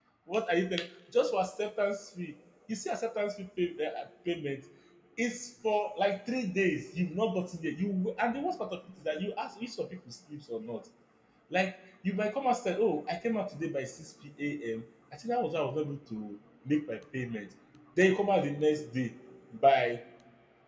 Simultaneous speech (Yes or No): No